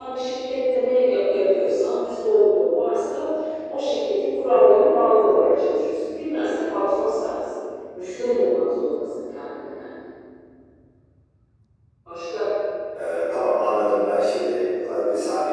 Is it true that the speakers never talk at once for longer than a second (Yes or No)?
Yes